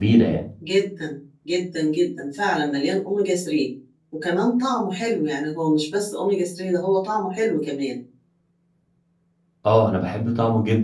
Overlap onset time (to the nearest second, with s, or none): none